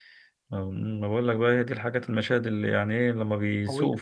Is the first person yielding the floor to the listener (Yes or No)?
No